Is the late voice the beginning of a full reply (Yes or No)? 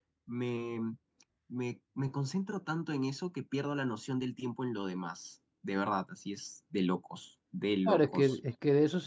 Yes